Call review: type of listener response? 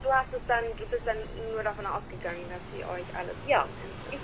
taking over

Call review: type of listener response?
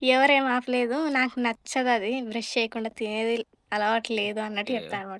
taking over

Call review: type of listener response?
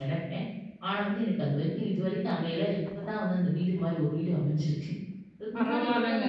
taking over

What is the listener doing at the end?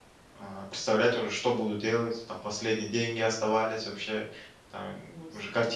listening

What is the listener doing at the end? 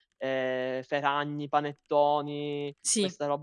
listening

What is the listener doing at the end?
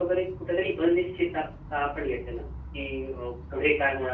listening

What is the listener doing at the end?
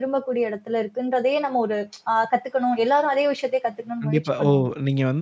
taking over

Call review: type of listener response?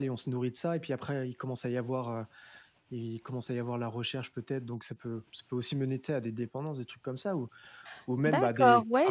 taking over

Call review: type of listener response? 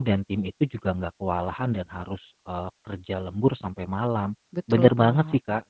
listening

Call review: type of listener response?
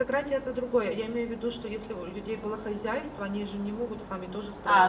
taking over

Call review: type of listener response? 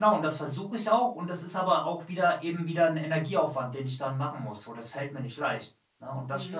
taking over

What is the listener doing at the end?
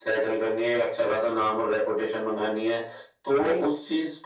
listening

